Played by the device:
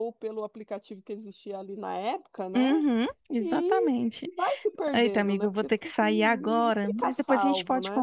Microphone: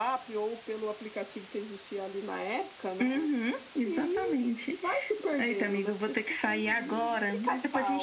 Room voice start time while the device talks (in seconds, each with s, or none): none